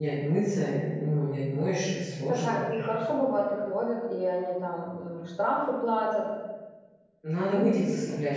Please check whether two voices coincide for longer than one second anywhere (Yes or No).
No